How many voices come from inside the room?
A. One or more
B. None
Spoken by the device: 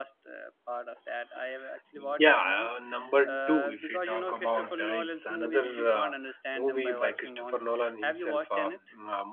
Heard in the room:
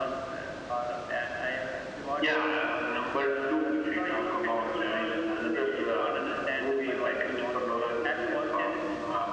B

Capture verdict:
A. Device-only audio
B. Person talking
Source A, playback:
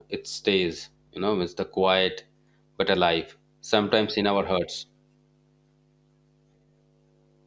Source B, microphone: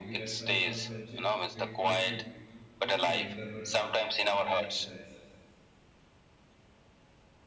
B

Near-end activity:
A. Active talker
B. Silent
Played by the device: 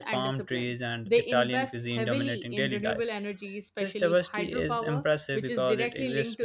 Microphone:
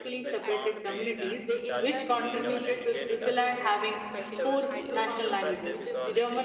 A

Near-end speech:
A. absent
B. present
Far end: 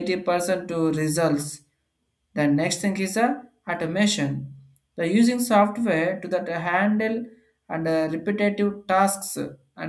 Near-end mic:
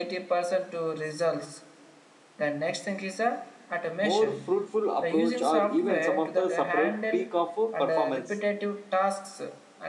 B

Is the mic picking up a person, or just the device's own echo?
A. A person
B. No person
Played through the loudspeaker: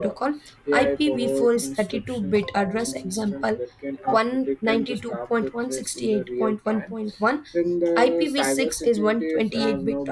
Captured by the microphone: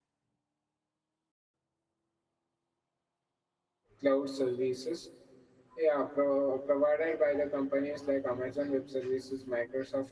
A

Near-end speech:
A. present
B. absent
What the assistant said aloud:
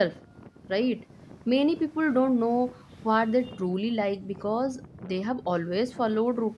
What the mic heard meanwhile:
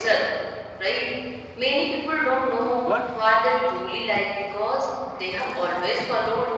A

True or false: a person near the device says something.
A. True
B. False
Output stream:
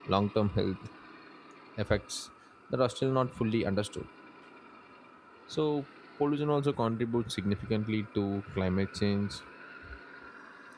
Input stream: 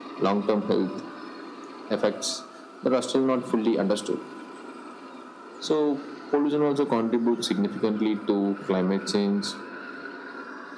B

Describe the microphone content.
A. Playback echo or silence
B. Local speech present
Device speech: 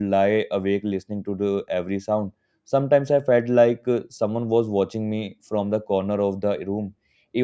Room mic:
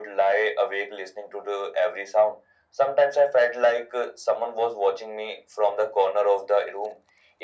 A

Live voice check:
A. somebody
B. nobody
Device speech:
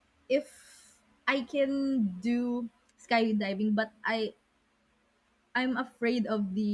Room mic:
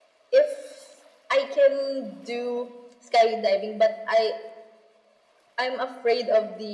B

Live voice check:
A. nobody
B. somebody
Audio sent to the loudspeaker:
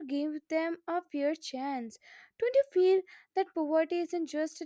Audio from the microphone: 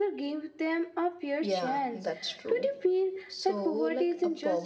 B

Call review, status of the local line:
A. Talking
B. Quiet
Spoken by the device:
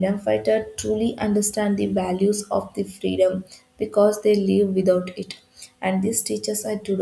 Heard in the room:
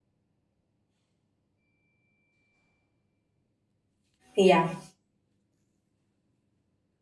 A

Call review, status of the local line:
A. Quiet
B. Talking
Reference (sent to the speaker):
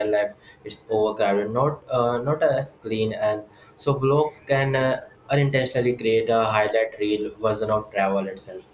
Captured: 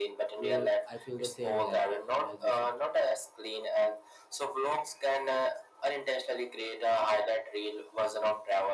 B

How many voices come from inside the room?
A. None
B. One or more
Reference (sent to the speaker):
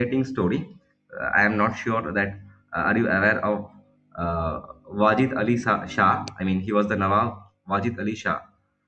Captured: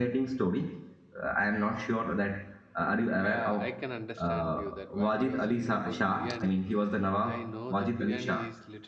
B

